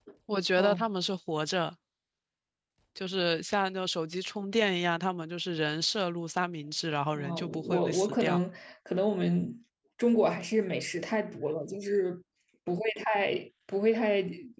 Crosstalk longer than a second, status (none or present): present